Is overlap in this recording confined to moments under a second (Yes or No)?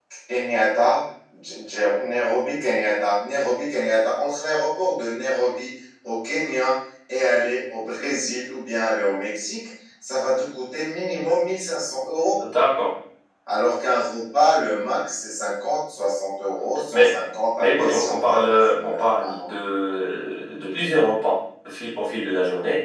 No